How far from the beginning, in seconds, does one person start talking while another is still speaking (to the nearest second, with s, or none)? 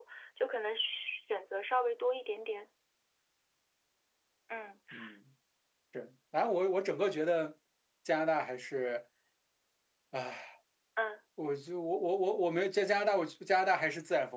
none